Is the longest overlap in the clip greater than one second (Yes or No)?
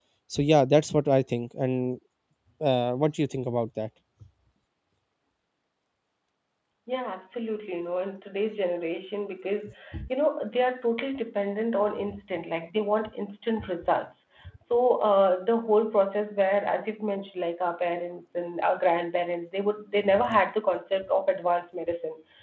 No